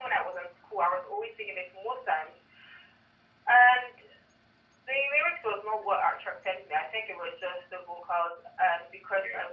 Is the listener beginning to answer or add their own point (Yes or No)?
No